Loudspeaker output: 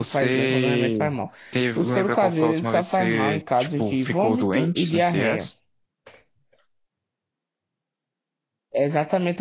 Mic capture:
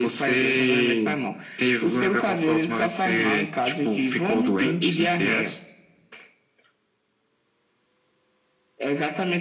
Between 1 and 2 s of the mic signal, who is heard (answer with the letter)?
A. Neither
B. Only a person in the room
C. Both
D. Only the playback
D